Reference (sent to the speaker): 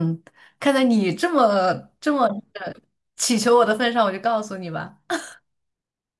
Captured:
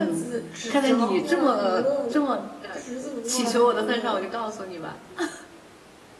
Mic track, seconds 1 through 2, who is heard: both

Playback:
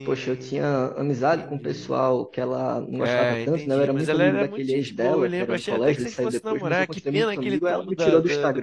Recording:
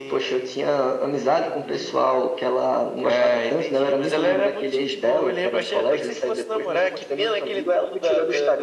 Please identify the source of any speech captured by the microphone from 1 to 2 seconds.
echo only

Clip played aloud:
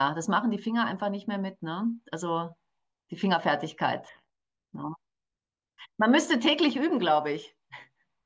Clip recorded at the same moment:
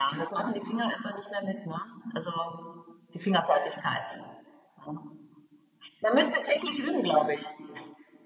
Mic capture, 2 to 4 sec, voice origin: echo only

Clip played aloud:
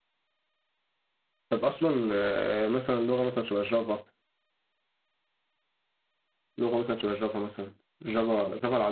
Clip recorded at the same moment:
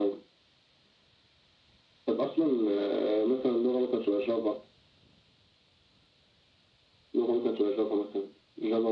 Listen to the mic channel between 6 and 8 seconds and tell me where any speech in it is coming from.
echo only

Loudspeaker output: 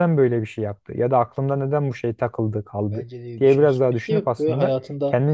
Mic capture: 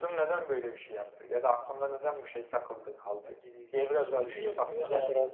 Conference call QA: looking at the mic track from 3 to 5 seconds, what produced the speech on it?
both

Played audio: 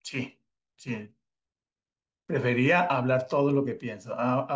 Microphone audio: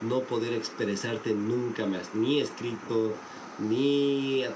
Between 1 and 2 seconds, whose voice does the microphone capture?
user only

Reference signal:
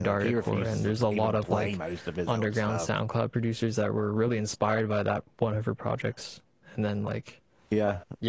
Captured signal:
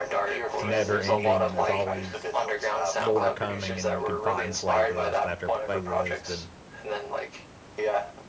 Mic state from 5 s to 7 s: both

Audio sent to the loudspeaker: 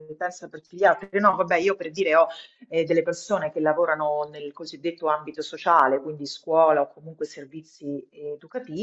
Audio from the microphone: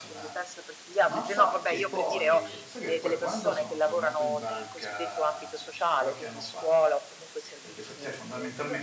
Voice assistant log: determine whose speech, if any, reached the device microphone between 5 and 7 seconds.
both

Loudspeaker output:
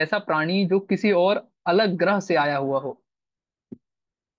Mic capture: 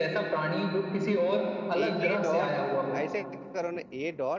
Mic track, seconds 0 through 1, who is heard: echo only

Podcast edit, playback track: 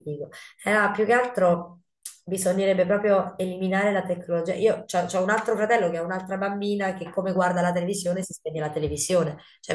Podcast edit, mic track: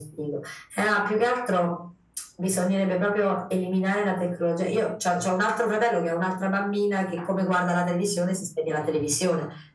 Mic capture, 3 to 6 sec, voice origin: echo only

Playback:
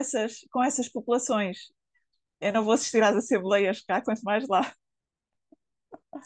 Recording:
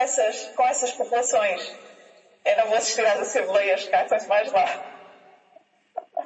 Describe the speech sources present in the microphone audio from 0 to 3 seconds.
echo only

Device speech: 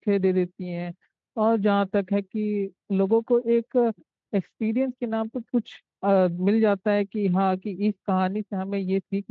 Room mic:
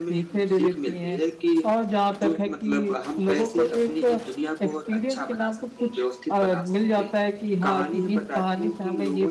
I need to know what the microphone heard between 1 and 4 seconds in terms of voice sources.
both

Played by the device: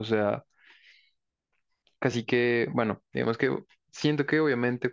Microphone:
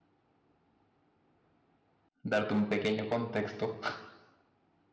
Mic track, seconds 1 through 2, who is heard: neither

